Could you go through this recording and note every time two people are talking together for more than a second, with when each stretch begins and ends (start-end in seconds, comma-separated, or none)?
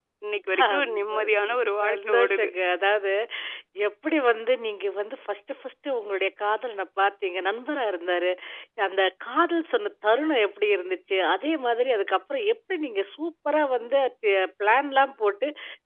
0.6-2.5